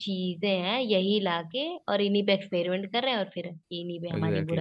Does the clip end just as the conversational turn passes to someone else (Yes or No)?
Yes